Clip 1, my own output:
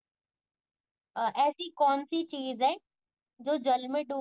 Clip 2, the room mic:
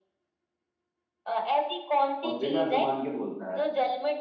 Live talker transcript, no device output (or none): और बिना जुबान के बोलता है